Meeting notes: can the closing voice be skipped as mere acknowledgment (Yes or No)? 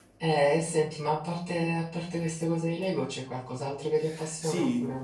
No